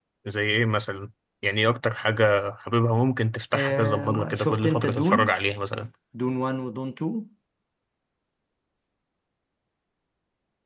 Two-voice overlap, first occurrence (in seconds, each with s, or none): 3.5 s